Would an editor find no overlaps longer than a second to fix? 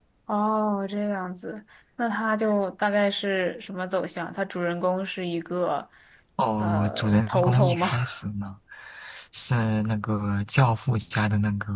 No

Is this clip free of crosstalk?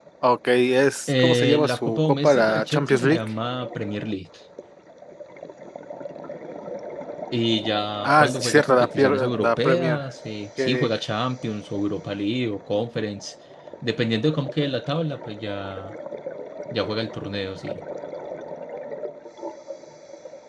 No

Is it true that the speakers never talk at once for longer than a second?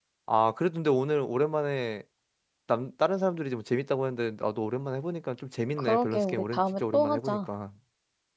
No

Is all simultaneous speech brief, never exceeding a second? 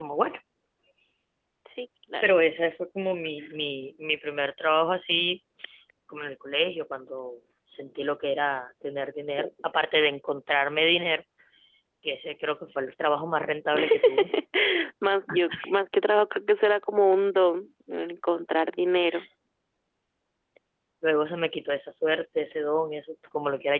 Yes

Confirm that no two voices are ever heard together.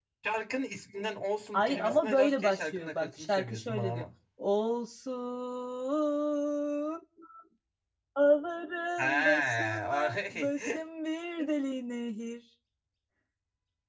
No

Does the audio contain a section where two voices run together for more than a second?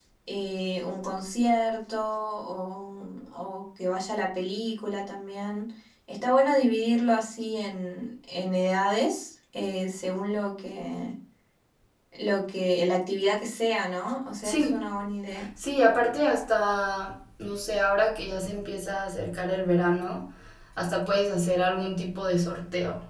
No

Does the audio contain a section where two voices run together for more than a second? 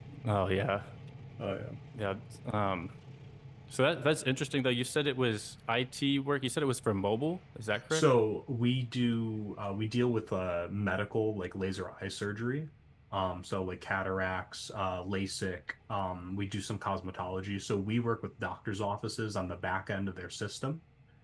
No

